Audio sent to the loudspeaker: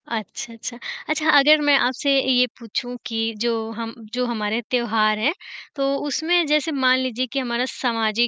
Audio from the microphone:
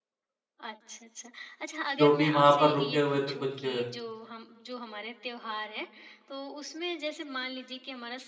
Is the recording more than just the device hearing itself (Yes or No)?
Yes